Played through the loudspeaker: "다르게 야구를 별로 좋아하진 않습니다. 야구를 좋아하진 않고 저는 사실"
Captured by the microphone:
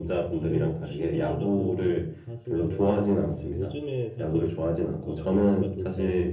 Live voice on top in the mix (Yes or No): No